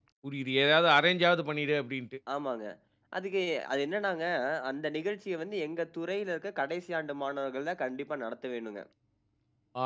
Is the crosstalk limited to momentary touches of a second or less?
Yes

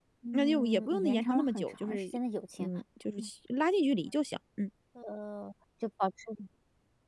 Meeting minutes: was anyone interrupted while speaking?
Yes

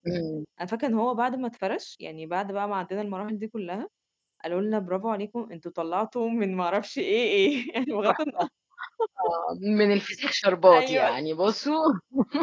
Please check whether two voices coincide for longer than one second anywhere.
No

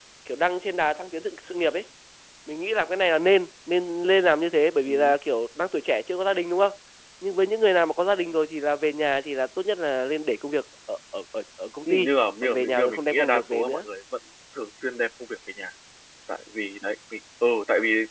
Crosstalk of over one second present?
Yes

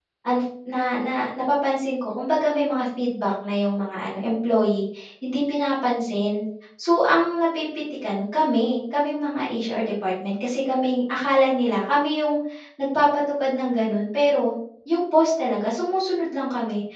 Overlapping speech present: No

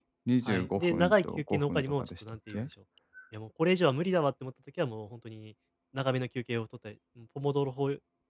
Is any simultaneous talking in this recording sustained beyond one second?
Yes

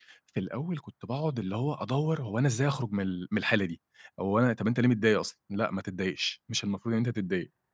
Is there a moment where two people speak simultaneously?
No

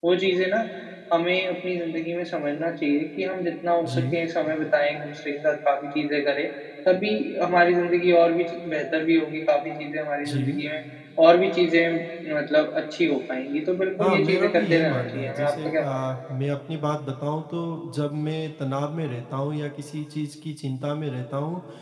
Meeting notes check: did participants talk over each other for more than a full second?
Yes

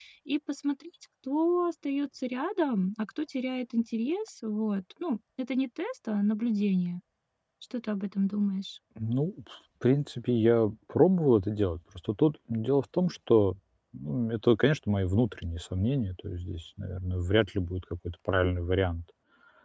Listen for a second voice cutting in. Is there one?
No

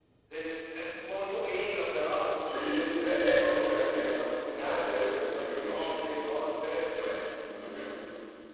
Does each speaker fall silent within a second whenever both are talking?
No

